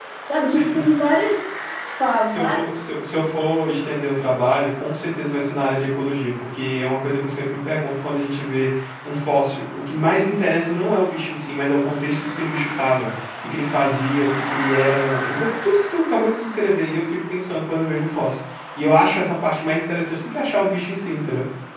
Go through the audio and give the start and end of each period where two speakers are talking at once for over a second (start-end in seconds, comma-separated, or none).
none